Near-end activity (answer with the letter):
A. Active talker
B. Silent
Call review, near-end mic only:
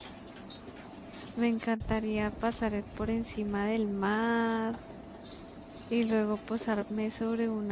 A